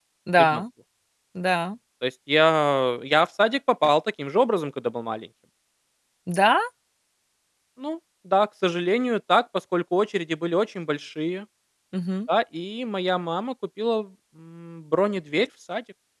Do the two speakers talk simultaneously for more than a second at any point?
No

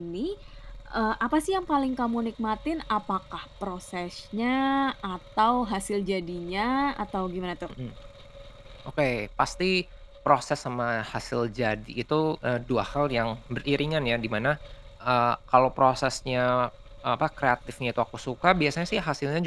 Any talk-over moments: No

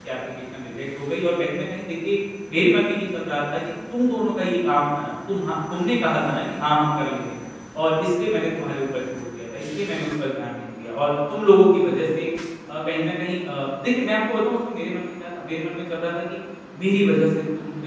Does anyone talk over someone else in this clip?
No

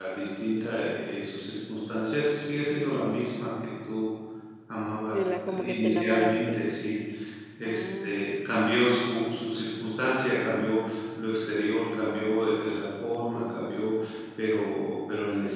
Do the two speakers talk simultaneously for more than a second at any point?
Yes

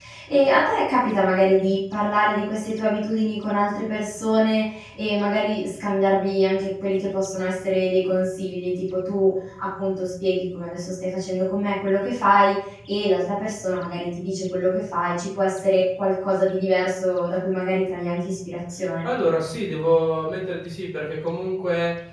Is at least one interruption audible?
No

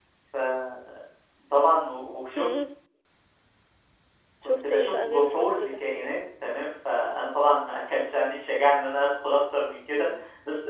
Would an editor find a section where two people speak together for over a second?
Yes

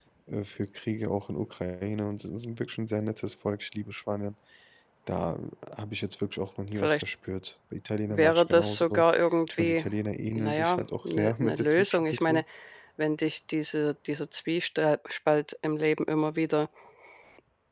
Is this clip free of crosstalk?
No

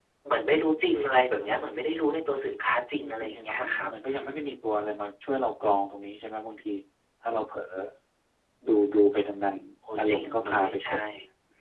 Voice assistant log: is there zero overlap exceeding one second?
No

